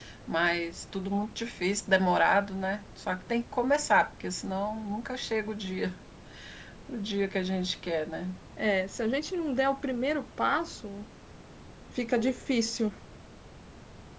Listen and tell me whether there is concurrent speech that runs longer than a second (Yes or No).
No